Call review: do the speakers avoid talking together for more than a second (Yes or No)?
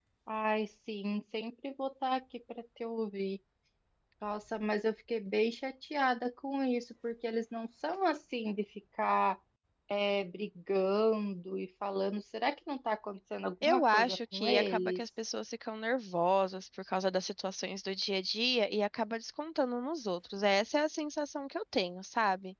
No